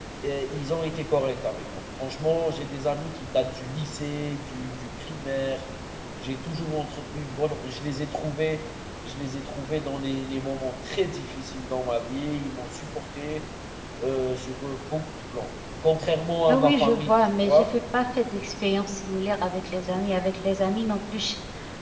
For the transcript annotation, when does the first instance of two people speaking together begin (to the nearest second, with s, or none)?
16 s